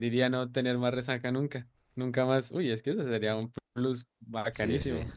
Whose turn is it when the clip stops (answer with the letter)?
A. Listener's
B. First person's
A